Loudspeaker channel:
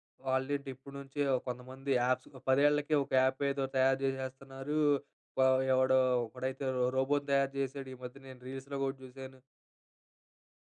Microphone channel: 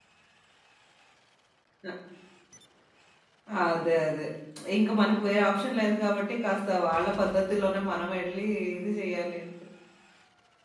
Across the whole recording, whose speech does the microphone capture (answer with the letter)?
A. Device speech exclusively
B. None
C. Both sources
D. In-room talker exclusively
D